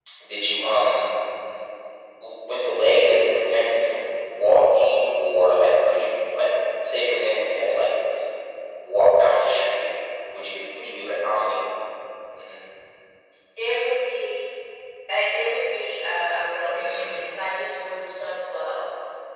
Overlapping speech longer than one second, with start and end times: none

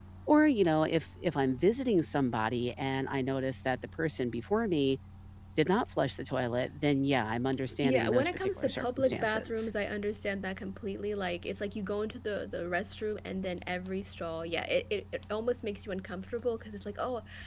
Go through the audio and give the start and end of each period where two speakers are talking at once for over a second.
7.8-9.7

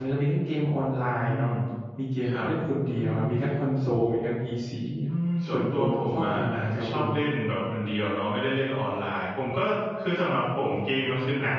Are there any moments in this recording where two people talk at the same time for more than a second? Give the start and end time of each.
5.5-7.0

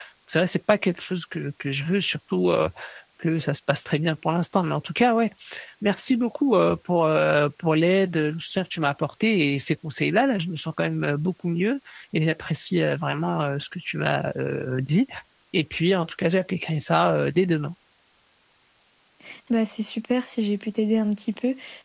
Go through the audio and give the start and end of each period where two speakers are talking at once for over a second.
none

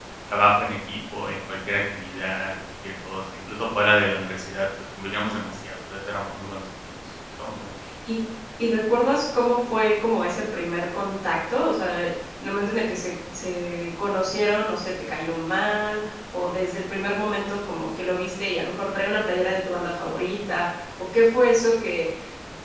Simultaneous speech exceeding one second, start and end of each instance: none

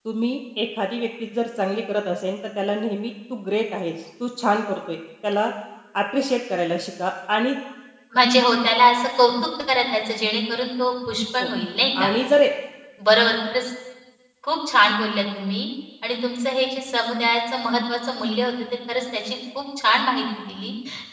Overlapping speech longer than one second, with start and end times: none

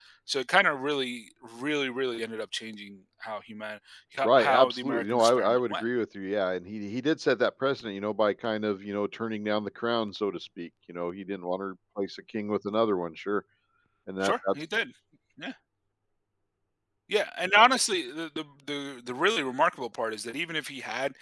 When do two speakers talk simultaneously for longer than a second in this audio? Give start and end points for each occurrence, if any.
4.2-5.8

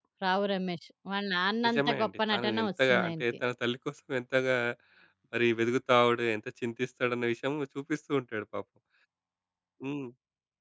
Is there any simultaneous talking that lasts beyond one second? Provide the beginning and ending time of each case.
1.6-3.2

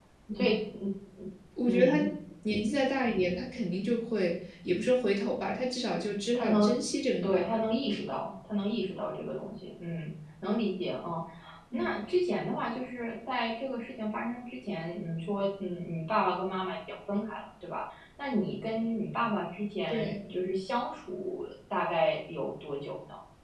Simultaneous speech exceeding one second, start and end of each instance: none

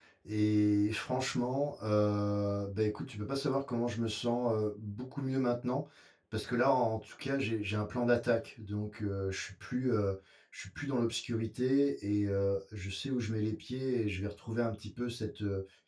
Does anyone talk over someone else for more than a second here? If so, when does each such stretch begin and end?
none

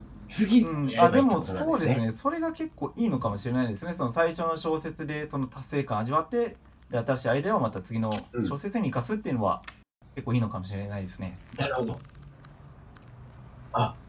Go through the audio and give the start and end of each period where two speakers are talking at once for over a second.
0.6-2.0

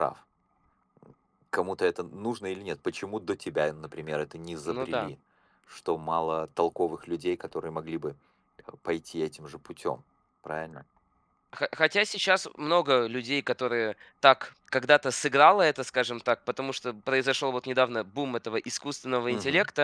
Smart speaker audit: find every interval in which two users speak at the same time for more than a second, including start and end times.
none

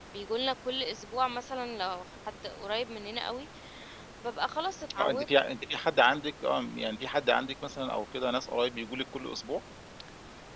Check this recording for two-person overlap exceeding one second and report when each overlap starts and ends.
none

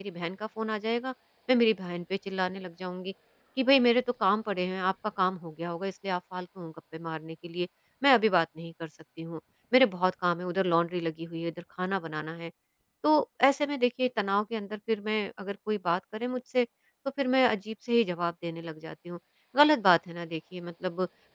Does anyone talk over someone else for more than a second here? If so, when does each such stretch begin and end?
none

